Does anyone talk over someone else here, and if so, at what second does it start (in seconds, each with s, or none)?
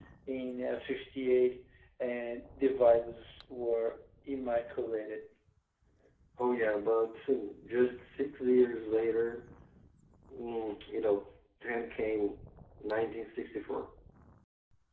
none